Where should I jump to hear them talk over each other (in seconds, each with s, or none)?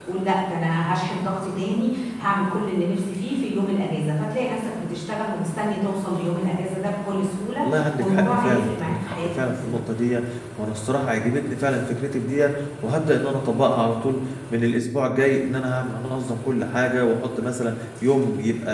7.6 s